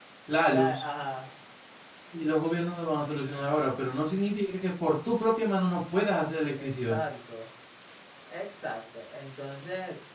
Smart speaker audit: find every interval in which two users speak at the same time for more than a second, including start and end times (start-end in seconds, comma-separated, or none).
none